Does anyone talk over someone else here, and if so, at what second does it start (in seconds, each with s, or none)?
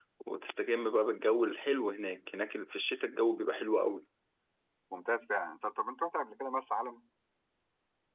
none